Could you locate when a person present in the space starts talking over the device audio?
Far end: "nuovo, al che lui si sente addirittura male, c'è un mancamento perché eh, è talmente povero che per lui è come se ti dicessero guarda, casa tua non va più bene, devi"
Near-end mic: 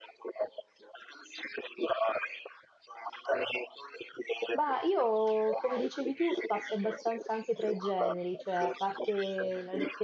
4.5 s

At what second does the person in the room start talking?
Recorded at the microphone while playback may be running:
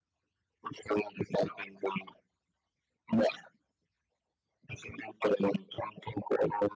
none

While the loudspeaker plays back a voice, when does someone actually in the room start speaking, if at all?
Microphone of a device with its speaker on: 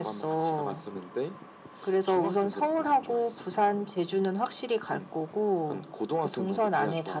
none

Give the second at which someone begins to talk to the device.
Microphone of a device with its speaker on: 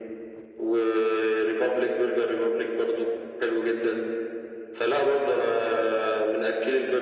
none

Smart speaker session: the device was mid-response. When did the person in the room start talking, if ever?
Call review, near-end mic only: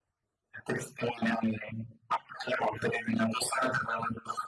none

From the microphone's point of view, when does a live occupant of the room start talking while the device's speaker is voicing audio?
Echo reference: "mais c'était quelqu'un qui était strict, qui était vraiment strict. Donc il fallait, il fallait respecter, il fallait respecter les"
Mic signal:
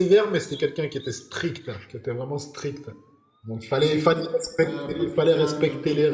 4.6 s

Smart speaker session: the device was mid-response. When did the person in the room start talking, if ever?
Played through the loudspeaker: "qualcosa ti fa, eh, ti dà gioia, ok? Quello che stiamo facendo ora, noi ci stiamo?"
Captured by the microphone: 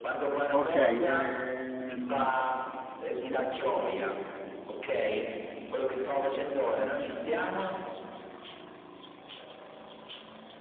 0.5 s

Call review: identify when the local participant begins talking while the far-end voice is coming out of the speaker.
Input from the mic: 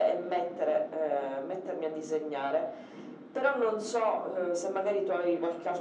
none

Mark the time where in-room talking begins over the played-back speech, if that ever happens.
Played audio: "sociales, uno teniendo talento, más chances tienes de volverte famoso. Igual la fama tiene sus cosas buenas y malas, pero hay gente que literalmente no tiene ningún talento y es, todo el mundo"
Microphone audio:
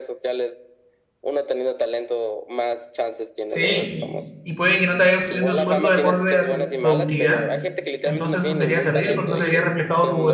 3.5 s

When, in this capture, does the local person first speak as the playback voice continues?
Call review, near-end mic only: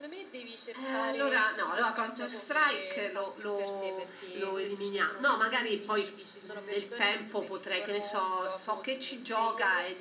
none

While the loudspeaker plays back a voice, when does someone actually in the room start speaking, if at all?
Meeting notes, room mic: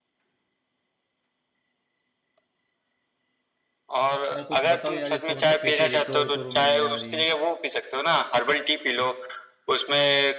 4.3 s

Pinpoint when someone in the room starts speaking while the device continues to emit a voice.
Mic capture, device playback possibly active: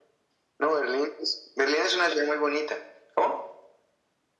none

